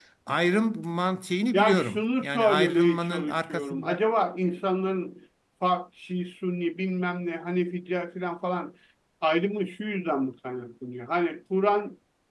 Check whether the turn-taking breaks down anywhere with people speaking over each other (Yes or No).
Yes